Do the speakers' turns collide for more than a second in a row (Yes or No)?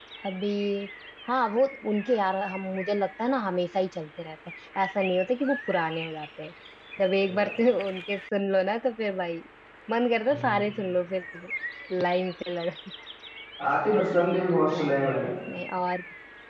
No